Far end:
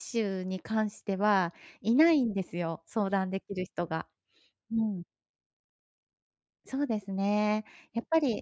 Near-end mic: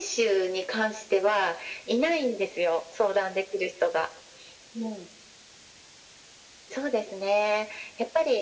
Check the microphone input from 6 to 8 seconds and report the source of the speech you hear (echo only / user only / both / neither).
echo only